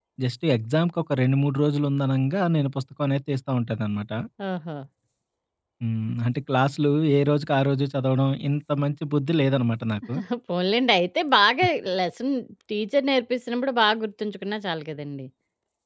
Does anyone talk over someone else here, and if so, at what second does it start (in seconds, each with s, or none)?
none